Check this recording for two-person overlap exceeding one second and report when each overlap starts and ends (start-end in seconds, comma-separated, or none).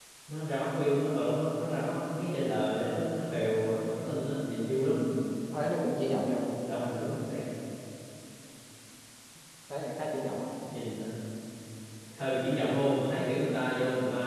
none